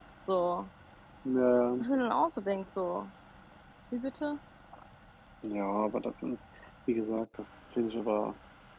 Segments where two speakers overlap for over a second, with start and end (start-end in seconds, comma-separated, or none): none